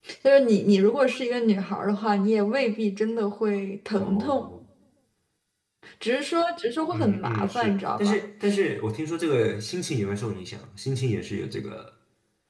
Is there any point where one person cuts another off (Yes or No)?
Yes